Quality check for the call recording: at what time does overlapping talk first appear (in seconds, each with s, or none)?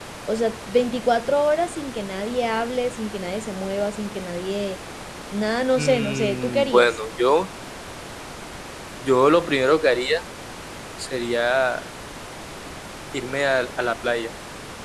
5.8 s